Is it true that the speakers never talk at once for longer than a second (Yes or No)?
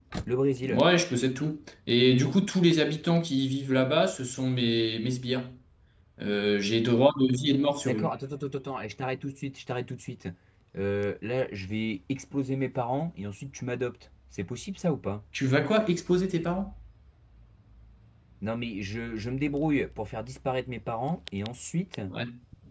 Yes